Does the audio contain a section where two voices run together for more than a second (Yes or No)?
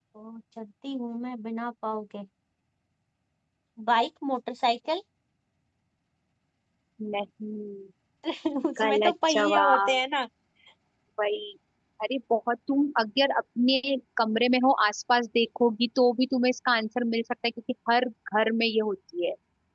Yes